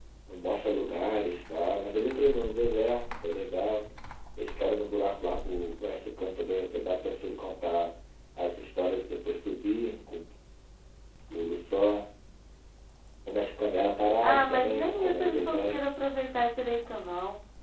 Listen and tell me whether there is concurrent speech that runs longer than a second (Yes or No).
Yes